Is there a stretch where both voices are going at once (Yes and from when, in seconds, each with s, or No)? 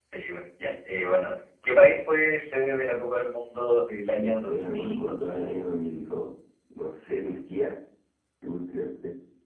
Yes, from 4.2 s